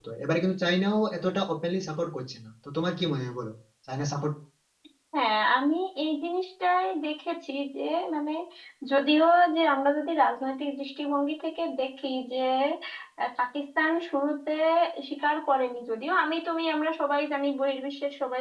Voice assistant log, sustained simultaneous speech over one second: none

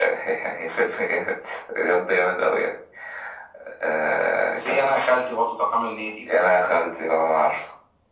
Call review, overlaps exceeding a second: none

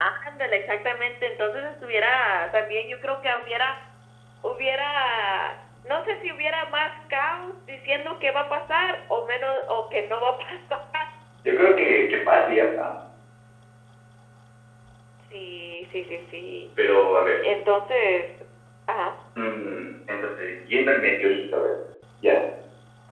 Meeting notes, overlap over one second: none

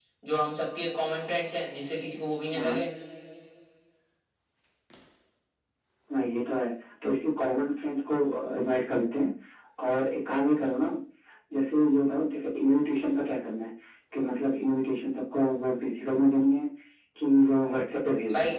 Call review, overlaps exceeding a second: none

